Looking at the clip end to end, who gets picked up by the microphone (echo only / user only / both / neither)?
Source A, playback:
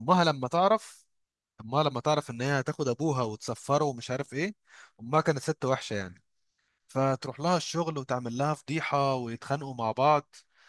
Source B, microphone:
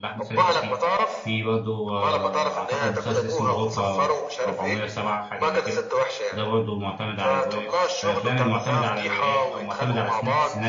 both